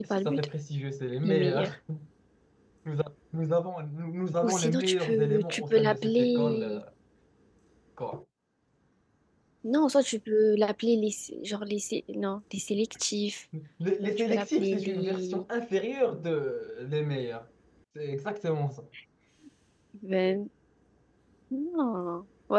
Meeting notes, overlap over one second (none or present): present